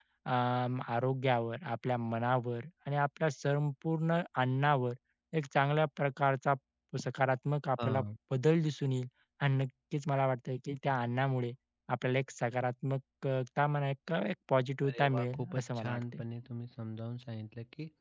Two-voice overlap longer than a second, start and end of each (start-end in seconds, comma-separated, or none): 14.8-16.2